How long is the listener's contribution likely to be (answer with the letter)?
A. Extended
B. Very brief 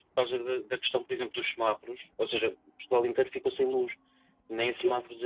B